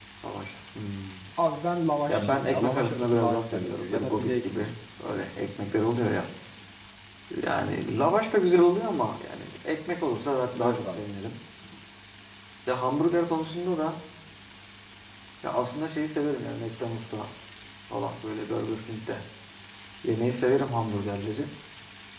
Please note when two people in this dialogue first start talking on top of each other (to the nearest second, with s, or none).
2 s